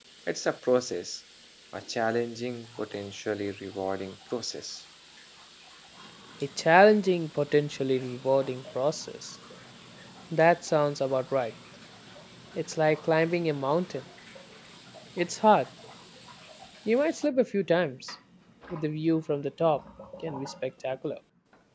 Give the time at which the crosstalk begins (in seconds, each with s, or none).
none